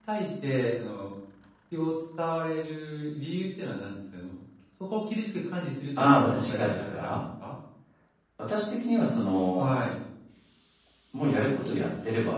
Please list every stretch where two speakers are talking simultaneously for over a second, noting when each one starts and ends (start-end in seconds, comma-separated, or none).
6.0-7.2